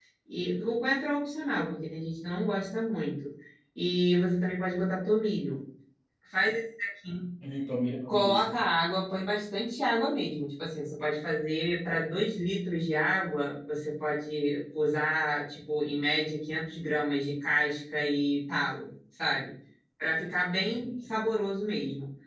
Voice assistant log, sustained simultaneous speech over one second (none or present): none